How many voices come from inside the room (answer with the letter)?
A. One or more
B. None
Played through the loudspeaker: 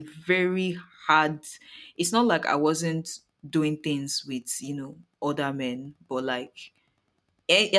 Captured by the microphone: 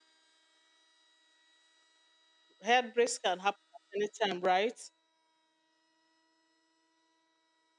A